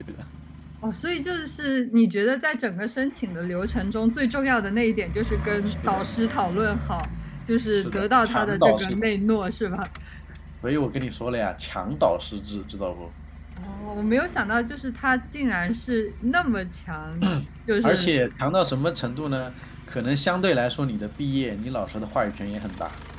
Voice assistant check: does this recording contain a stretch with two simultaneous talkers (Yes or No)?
Yes